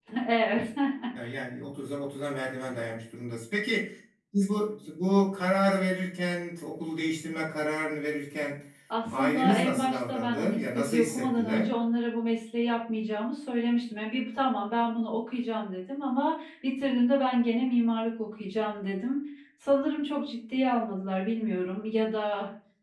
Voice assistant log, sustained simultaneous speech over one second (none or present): present